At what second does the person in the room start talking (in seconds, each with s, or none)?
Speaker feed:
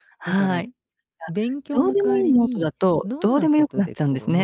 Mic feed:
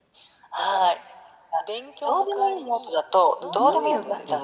3.4 s